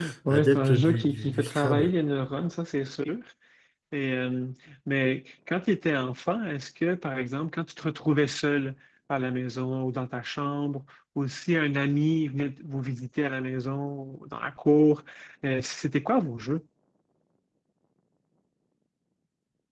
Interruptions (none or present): present